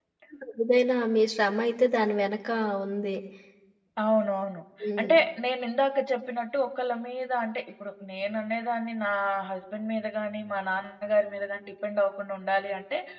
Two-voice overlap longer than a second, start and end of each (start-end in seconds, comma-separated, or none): none